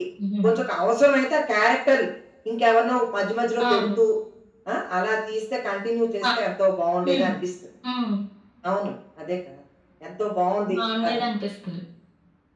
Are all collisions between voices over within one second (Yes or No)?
Yes